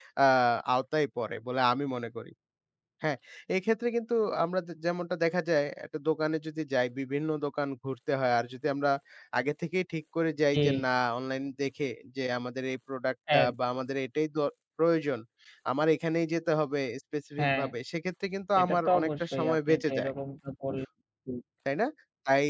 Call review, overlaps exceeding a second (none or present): present